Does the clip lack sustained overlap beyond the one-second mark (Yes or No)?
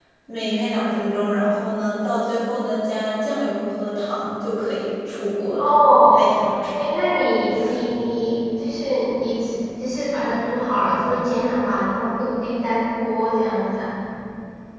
Yes